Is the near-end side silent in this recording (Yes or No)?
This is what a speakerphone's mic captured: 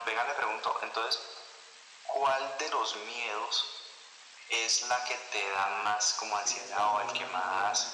No